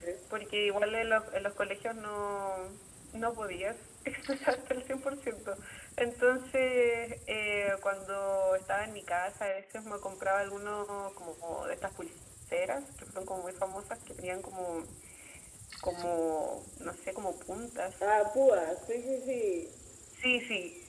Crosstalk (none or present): none